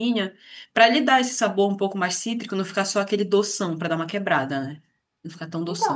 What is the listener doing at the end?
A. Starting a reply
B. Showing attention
A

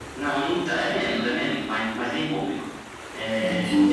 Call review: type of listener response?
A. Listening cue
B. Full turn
A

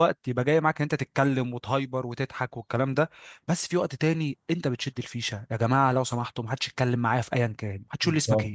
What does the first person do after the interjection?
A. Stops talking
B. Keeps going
A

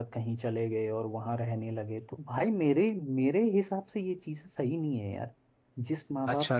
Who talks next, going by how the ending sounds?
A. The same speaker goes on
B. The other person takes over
B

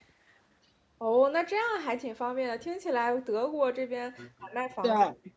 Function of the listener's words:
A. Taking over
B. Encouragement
B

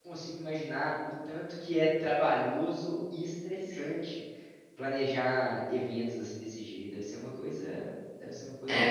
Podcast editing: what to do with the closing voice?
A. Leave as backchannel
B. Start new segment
B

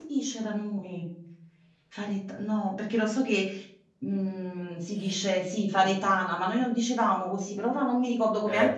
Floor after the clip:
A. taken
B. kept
A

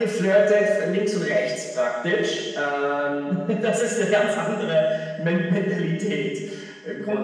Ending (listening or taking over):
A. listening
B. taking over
B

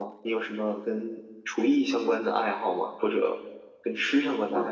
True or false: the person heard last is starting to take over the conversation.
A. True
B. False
A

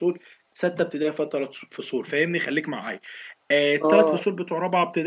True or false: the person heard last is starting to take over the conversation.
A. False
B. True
A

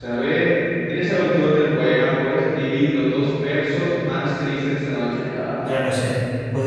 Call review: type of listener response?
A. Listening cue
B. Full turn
B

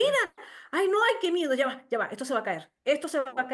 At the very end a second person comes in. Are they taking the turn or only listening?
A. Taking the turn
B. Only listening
B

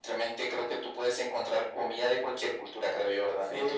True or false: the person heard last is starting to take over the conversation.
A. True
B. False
A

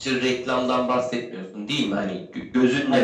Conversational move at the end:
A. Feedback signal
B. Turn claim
A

